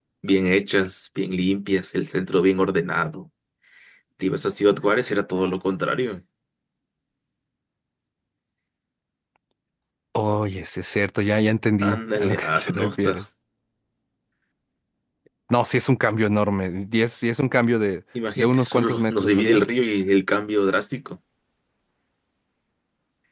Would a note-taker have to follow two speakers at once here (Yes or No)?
Yes